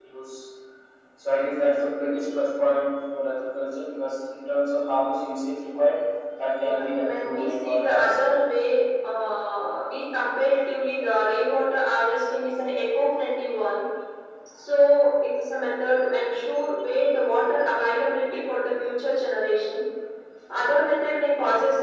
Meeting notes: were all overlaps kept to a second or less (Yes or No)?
No